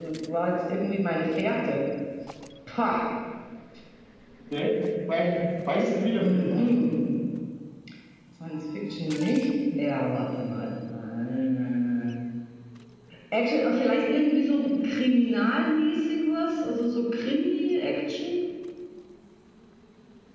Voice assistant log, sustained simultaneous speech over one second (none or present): none